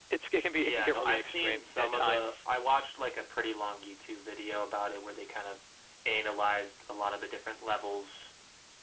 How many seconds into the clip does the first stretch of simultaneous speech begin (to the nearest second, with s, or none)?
1 s